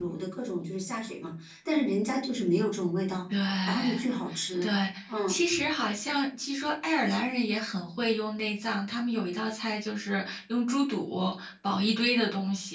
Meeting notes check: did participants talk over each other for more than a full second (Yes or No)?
No